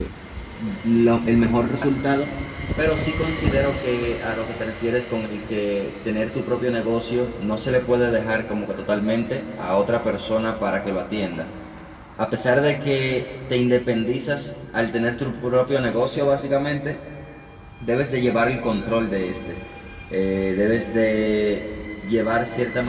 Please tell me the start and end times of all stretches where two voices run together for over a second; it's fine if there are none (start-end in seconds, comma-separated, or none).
none